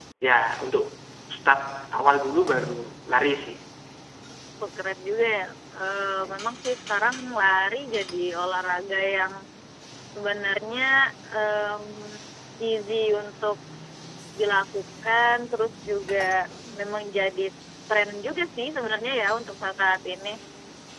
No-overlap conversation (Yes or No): Yes